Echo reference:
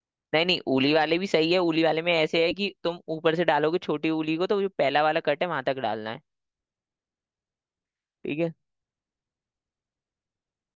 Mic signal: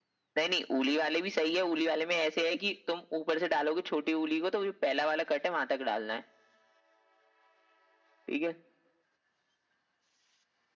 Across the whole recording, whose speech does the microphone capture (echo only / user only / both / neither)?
echo only